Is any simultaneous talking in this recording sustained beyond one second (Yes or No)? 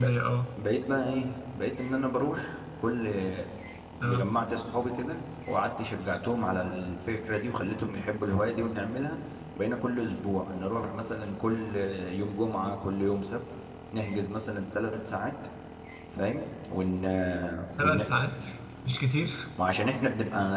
No